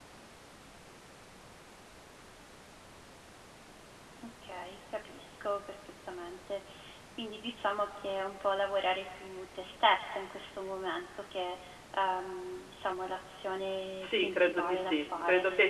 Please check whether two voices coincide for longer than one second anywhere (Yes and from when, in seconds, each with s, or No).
Yes, from 14.0 s